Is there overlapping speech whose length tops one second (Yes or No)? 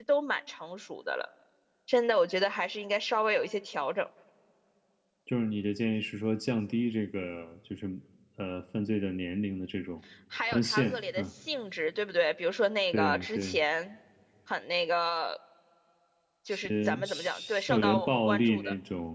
Yes